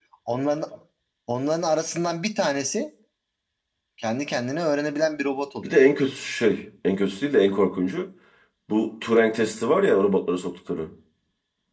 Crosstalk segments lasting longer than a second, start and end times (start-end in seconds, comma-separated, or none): none